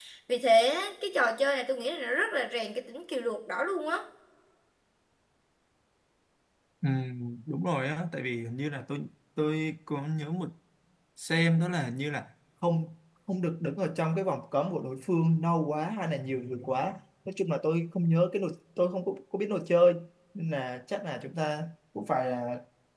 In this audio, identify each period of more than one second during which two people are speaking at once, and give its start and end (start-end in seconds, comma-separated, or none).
none